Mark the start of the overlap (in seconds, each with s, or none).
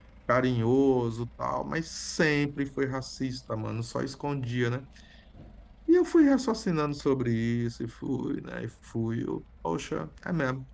none